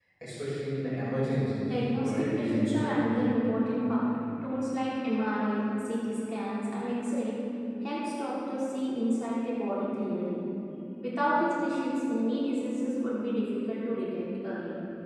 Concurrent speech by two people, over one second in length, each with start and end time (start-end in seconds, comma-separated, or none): 1.6-3.0